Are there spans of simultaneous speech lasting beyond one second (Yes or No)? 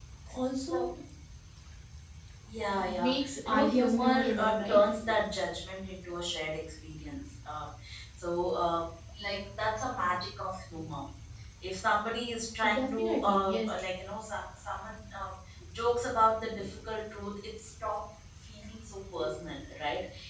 Yes